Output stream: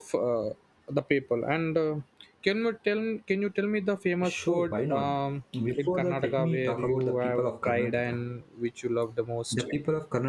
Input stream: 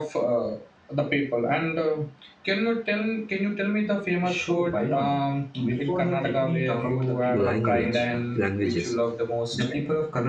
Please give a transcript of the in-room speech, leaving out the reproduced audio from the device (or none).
language languages,